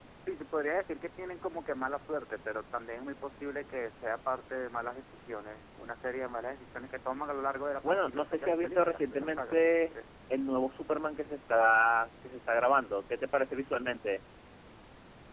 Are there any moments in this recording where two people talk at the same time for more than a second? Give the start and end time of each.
7.9-9.6

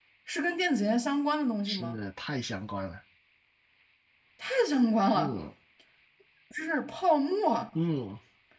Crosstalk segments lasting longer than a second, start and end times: none

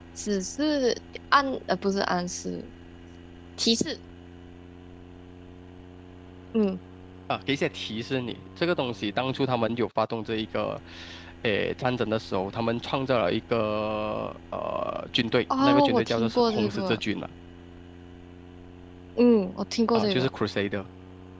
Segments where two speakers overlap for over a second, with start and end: 15.6-17.0

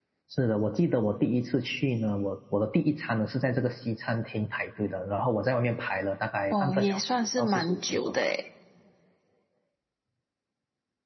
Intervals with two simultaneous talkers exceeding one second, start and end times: 6.5-8.3

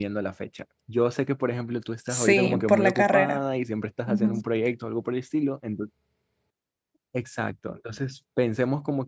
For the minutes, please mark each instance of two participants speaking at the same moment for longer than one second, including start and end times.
2.1-3.4

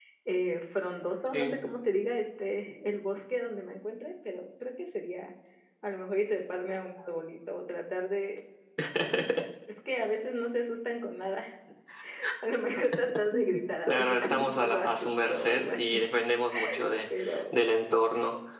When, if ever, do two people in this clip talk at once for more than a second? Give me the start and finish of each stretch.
13.8-16.0

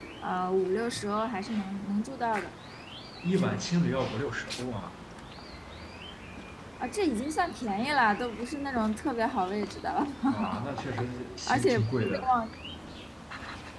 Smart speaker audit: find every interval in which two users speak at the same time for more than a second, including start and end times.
none

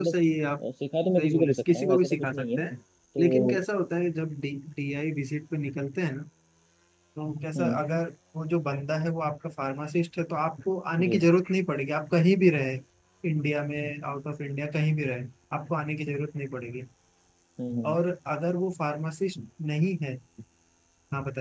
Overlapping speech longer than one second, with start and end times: 1.2-2.6

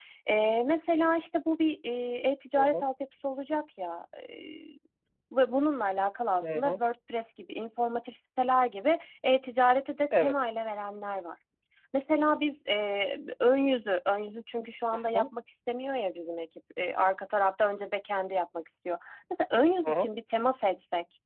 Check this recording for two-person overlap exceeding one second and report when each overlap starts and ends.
none

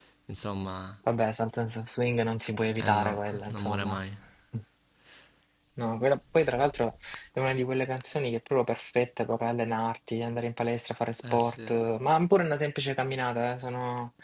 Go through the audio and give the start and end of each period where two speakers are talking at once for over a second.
2.8-4.0

